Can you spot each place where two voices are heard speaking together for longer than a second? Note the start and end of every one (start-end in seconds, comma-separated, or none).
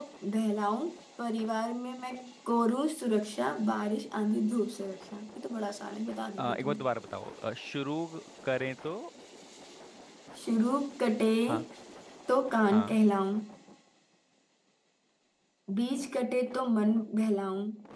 none